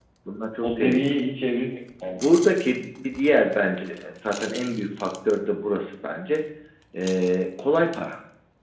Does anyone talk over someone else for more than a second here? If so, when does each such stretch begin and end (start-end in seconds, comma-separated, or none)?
none